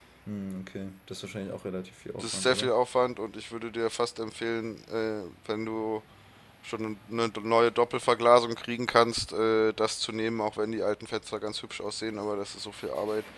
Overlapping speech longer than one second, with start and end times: none

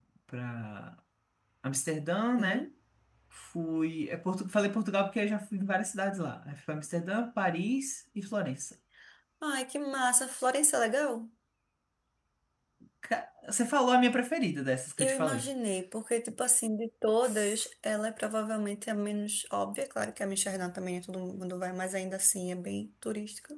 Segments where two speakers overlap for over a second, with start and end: none

